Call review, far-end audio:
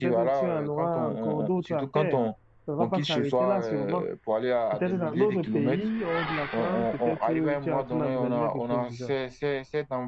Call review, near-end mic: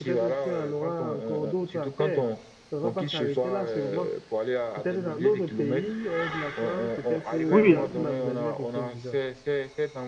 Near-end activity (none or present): present